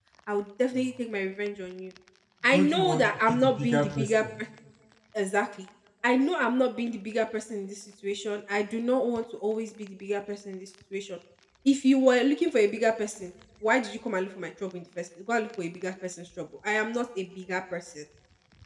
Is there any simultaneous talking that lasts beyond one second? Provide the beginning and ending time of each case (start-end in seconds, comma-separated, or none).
2.5-4.2